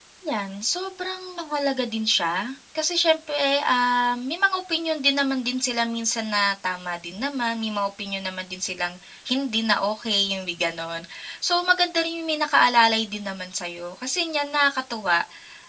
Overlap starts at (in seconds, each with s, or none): none